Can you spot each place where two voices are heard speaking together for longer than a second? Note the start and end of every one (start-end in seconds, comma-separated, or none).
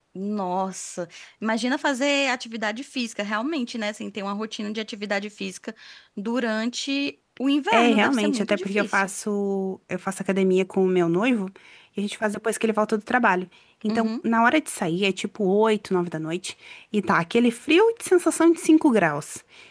7.7-9.1